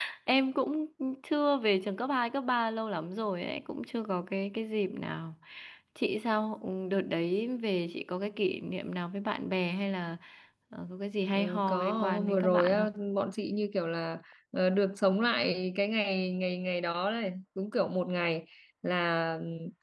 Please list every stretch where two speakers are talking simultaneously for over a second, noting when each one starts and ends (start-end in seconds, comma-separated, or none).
11.3-13.0